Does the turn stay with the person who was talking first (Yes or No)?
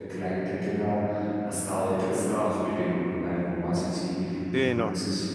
Yes